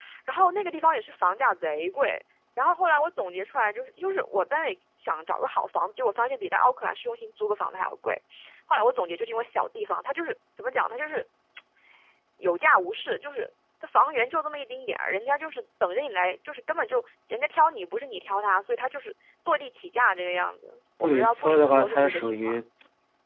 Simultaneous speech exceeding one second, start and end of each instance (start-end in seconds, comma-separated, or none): 21.0-22.6